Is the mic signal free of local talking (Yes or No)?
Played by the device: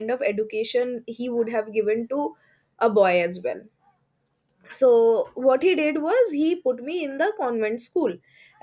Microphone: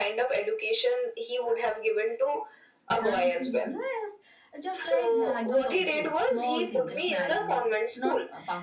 No